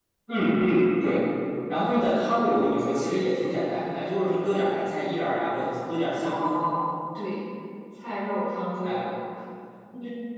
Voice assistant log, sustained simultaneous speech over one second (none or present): none